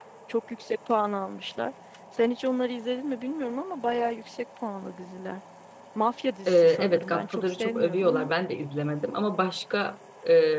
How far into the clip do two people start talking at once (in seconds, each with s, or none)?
6.5 s